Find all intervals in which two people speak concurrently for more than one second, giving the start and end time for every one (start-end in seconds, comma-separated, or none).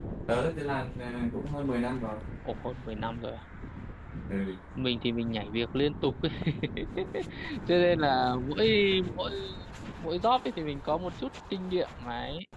none